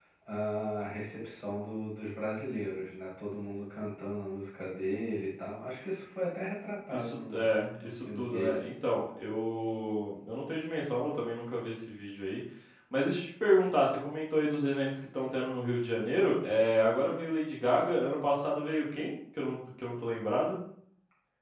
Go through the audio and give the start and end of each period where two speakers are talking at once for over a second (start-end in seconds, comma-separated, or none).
6.9-8.7